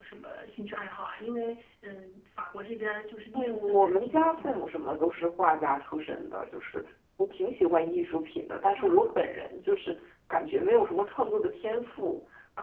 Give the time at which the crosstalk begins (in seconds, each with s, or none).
3.3 s